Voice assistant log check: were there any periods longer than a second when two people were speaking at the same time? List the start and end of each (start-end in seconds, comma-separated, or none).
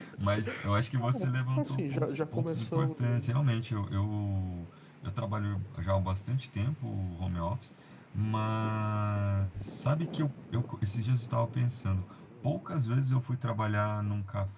1.6-3.4